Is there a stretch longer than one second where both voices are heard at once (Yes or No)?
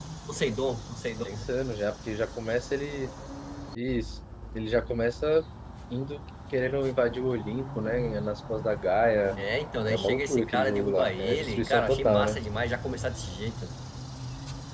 Yes